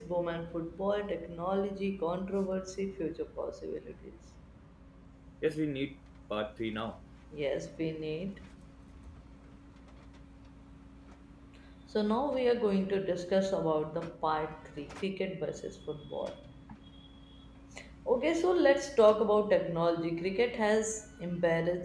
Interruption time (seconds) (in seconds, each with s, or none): none